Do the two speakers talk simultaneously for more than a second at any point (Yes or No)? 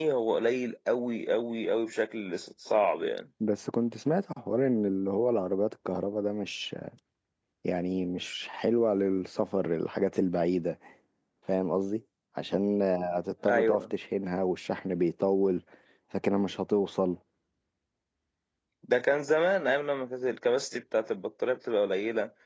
No